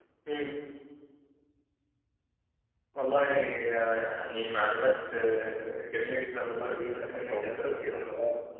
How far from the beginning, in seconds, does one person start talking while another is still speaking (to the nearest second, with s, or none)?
7 s